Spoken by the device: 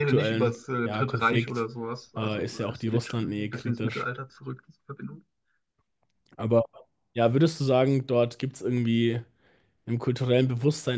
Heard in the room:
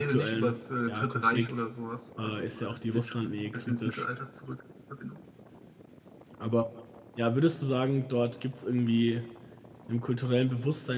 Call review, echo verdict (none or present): present